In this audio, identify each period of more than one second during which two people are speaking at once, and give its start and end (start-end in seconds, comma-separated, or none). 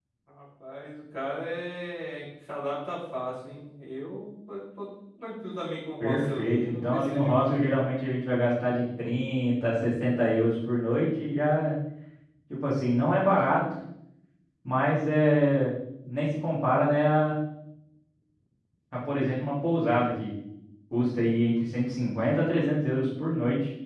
6.0-7.8